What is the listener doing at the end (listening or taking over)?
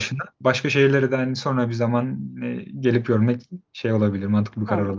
taking over